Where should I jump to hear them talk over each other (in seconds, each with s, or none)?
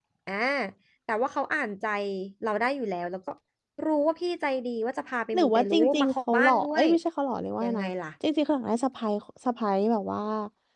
5.3 s